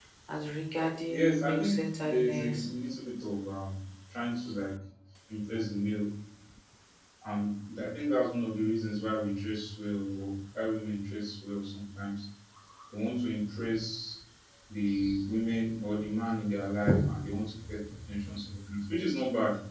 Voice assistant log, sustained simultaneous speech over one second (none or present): present